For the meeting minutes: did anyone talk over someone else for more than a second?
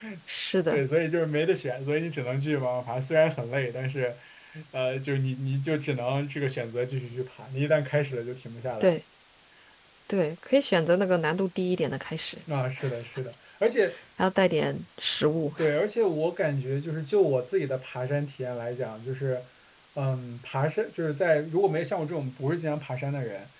No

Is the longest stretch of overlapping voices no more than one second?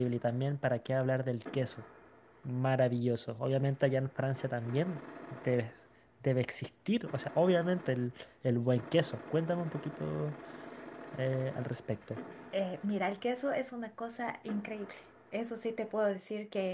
Yes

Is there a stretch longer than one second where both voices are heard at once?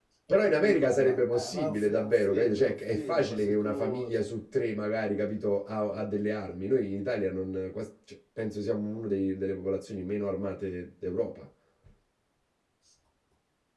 Yes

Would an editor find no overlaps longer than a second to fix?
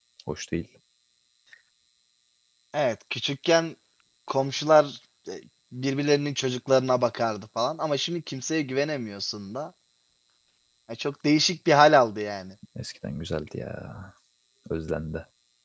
Yes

